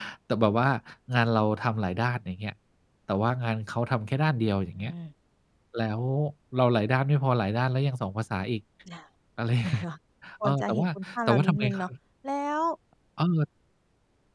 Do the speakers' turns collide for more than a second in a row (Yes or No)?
Yes